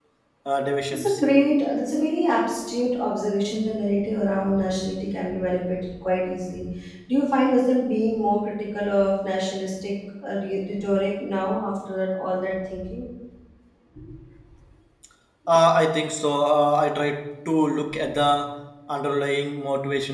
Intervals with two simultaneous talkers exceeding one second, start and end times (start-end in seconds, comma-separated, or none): none